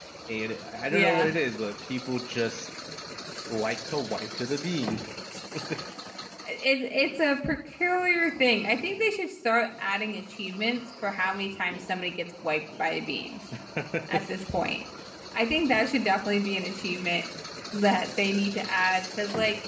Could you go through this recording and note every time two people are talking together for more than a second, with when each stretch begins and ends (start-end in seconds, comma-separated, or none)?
none